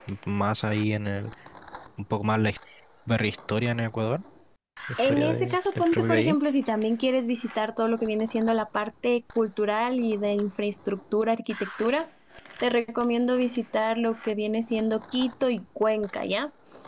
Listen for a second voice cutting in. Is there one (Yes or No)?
Yes